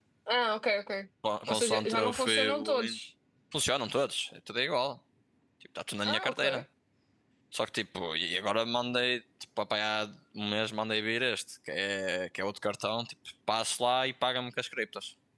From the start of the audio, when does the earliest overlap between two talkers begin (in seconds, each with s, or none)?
1.5 s